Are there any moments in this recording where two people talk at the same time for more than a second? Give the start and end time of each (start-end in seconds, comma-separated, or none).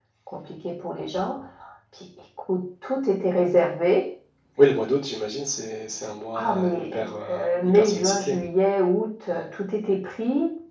6.3-8.4